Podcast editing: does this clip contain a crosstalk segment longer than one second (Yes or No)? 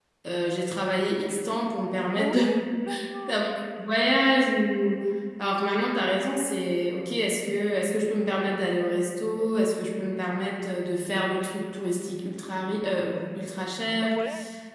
No